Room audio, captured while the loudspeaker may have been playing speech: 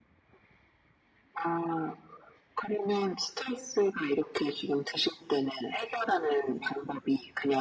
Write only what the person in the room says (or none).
none